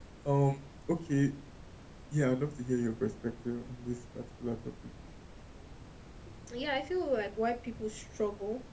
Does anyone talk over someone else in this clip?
No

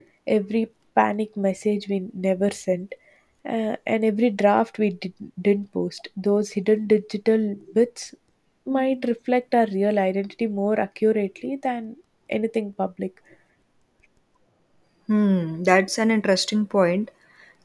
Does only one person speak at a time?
Yes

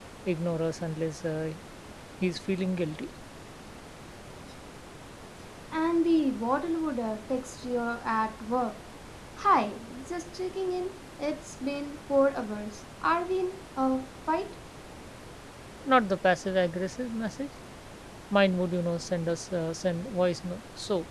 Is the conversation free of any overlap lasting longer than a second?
Yes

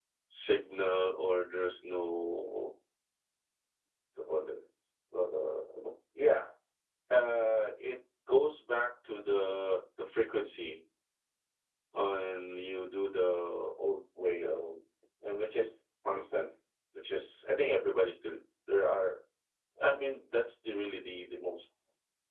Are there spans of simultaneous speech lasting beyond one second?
No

